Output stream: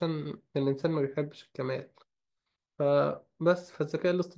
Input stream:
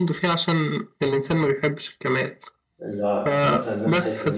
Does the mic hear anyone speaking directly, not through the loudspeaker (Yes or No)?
Yes